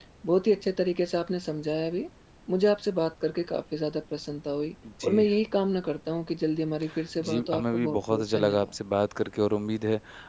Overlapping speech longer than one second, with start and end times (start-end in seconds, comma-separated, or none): 7.2-8.7